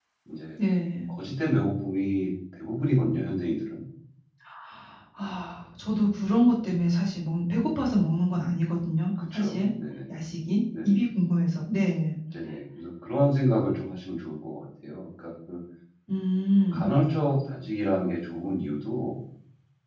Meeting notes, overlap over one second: none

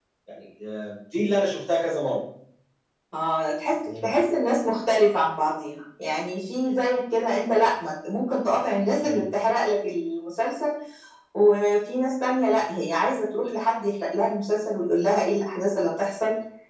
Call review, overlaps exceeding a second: none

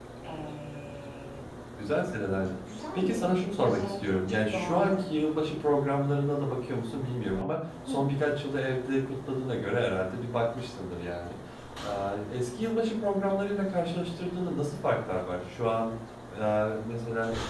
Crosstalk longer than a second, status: present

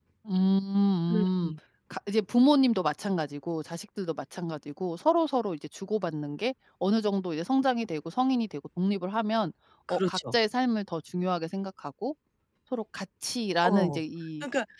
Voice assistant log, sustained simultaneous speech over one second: none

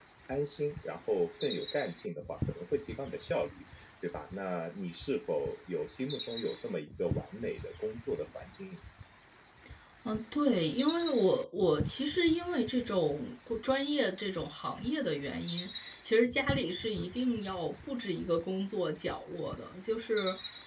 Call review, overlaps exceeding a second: none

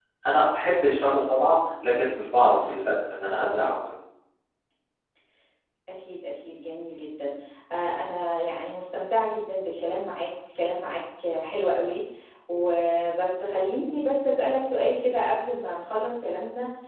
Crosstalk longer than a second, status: none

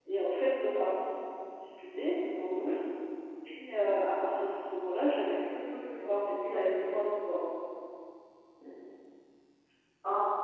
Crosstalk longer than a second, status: none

